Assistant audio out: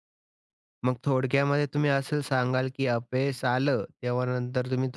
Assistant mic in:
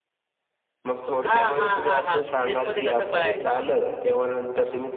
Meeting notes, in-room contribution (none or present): present